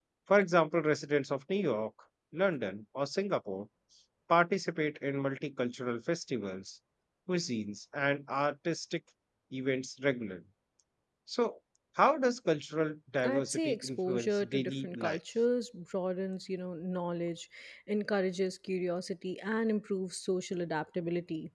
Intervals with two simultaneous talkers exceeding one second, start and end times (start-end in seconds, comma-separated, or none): 13.2-15.2